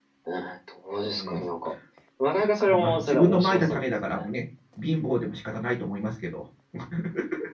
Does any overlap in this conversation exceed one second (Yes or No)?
Yes